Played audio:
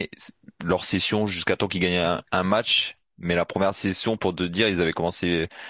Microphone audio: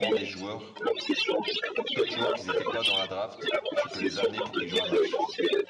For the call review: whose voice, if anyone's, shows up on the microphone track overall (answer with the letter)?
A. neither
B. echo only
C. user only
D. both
D